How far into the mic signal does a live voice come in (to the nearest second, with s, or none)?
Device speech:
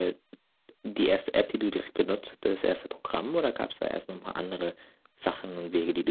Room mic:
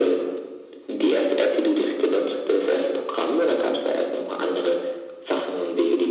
none